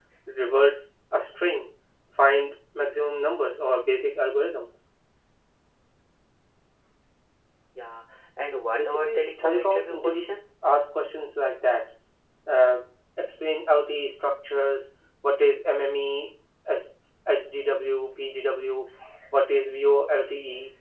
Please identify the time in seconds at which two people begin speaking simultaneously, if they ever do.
8.8 s

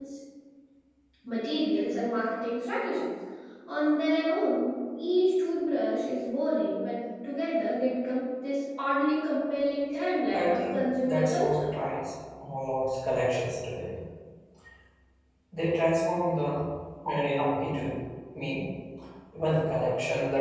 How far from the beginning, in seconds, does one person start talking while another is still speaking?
10.3 s

